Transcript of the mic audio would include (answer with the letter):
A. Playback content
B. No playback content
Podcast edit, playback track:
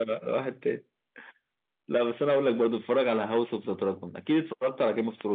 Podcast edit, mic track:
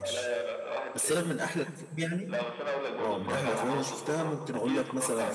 A